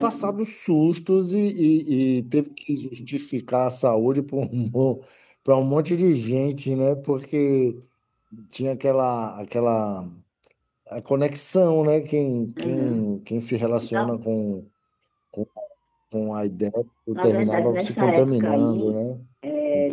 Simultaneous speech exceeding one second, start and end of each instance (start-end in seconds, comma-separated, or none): 17.2-19.0